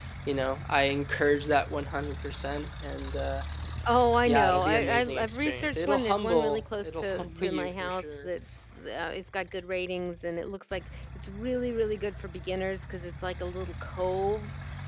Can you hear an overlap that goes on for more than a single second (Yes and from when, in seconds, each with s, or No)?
Yes, from 4.3 s